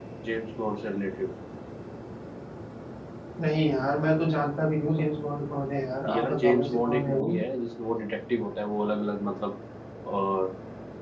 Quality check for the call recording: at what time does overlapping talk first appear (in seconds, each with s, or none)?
6.0 s